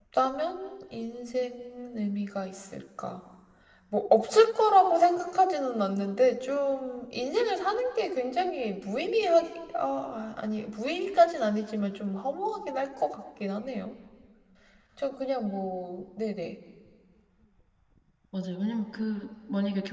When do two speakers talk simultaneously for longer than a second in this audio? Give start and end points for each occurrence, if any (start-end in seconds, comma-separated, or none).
none